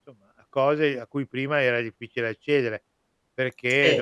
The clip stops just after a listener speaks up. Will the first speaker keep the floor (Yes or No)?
Yes